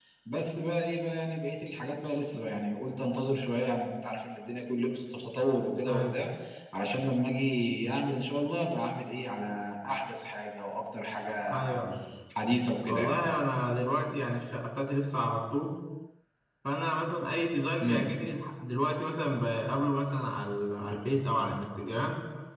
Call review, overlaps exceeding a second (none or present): none